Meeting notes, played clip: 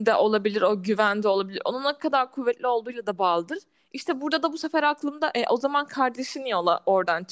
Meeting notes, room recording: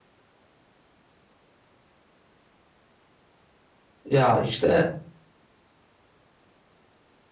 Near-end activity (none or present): present